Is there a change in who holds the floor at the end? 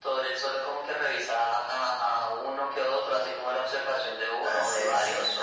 Yes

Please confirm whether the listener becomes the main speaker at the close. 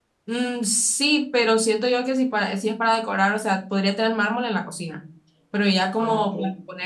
No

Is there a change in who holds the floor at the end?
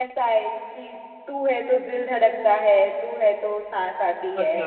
Yes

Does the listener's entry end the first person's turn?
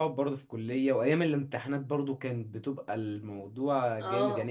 No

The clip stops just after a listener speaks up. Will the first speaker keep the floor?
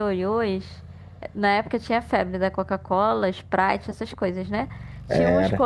Yes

